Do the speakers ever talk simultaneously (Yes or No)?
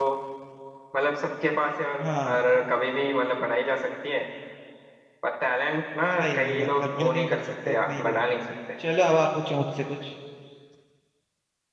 Yes